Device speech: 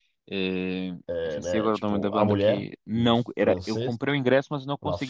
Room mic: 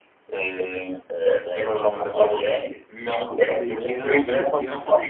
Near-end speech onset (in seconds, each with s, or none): 3.5 s